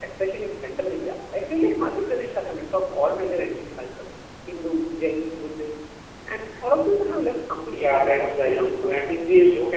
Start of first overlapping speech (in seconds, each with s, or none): 7.7 s